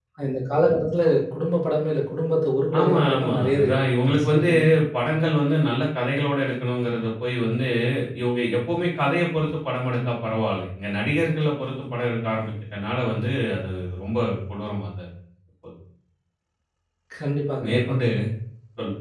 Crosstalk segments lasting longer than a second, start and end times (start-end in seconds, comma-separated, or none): 2.8-4.5